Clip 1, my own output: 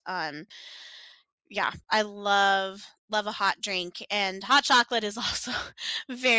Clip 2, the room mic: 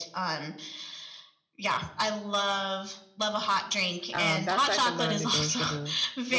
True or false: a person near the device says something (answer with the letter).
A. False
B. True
B